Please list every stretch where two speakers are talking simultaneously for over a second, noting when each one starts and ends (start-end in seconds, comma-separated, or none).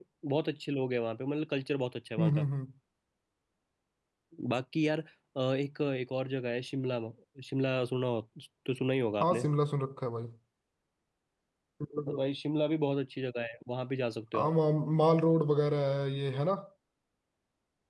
none